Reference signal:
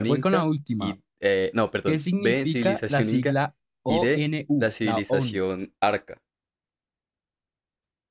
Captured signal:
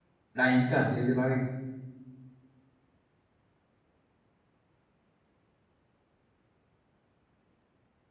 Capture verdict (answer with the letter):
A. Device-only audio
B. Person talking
B